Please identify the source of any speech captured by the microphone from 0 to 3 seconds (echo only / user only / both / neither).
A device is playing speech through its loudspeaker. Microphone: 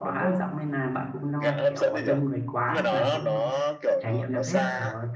both